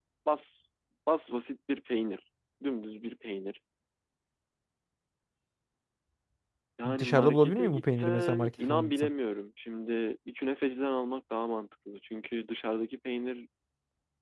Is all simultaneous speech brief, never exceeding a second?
No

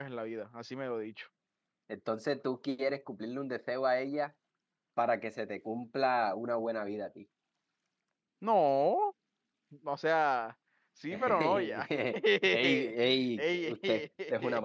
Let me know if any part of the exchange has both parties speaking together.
Yes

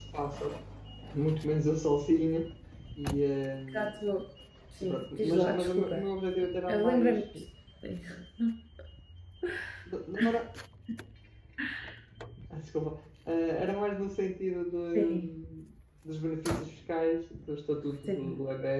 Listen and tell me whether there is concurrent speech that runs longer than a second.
Yes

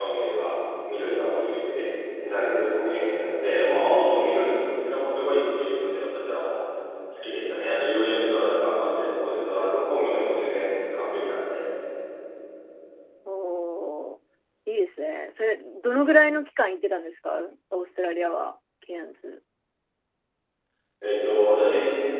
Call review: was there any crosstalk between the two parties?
No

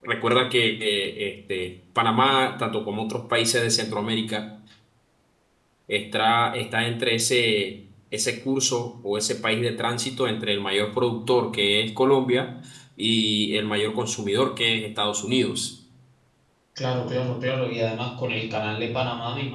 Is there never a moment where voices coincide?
Yes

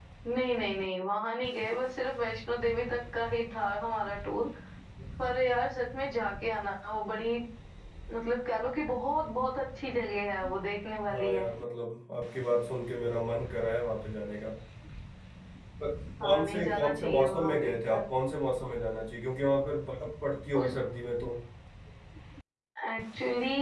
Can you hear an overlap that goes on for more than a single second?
Yes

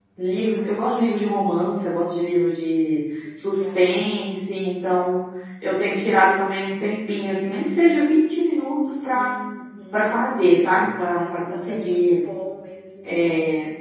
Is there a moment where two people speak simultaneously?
Yes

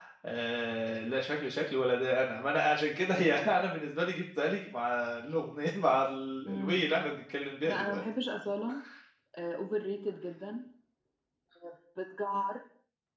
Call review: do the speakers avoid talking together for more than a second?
Yes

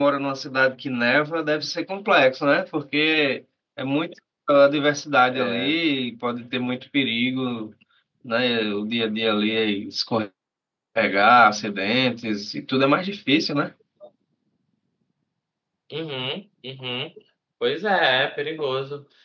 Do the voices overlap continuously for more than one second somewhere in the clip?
No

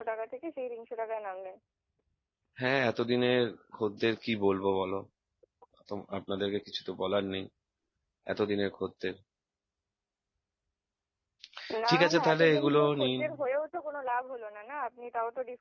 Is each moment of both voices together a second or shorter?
No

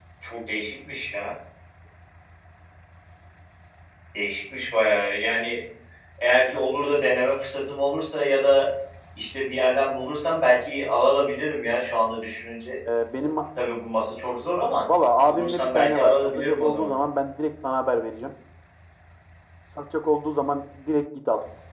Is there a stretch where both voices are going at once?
Yes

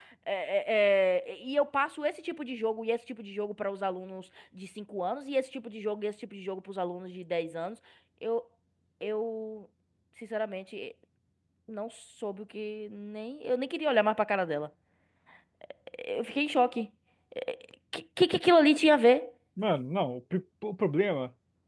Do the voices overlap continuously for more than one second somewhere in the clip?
No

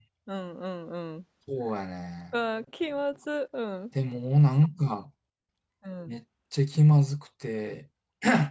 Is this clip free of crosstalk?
Yes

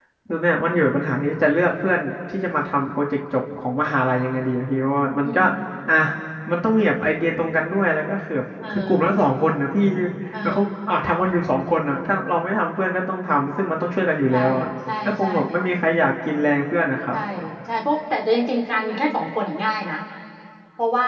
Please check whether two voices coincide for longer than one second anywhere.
No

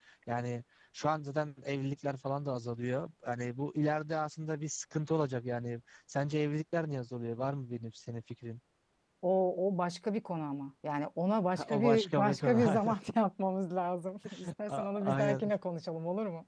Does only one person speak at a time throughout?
No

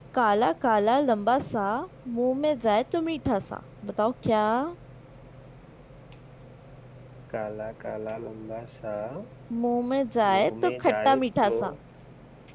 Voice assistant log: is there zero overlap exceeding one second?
No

